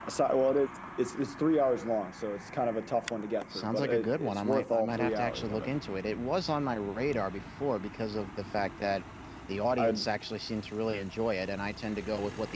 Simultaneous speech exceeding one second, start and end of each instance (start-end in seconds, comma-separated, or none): 3.5-5.7